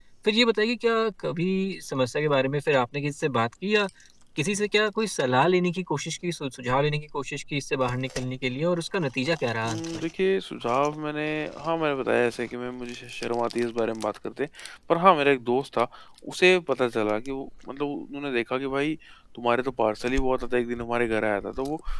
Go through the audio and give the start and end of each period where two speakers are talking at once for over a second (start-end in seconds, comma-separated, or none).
none